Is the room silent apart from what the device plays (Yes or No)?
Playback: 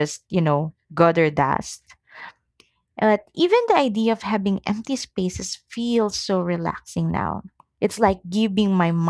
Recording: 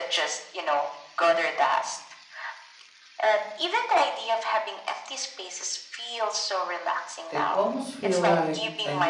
No